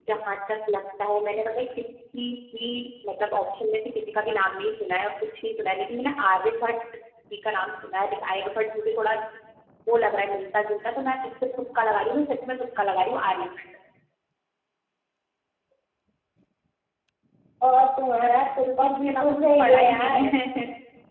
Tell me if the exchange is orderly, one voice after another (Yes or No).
No